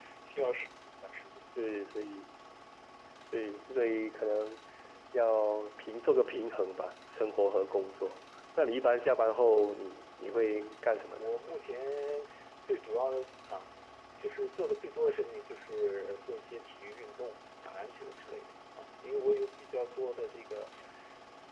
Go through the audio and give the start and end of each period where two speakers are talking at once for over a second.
none

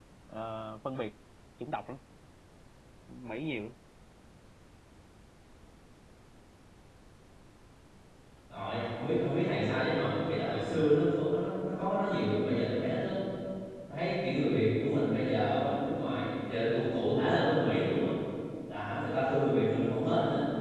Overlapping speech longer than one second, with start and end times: none

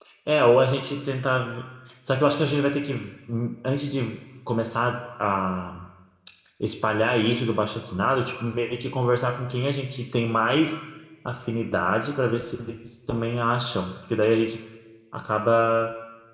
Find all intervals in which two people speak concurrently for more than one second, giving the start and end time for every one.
none

